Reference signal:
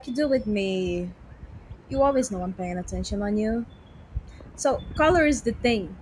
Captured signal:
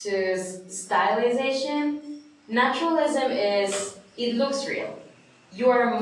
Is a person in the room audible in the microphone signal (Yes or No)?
Yes